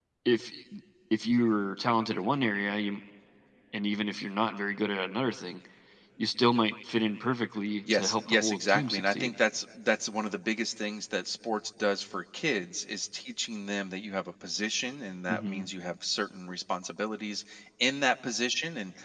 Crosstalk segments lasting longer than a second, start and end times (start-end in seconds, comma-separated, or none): 7.9-9.3